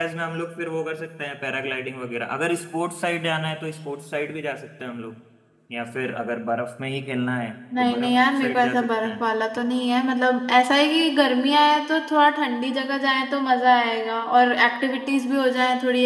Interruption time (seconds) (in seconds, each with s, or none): 7.7 s